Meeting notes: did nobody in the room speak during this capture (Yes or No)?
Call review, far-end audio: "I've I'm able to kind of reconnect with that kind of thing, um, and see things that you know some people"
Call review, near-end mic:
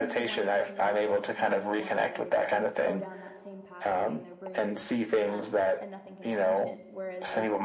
No